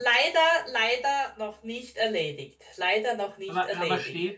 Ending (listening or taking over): taking over